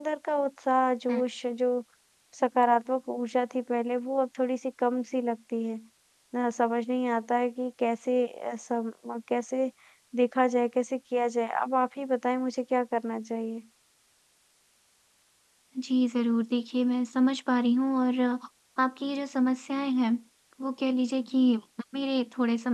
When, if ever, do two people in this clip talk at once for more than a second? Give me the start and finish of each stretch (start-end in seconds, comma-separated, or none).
none